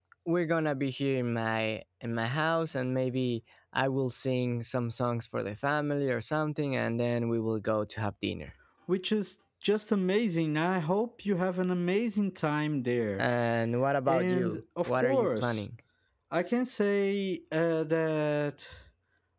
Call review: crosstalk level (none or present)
present